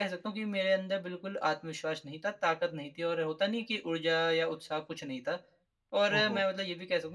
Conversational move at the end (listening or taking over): listening